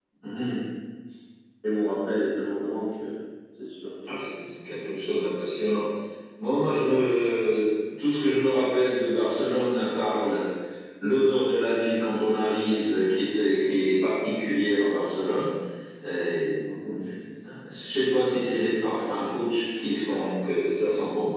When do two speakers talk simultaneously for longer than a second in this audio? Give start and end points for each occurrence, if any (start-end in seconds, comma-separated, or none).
none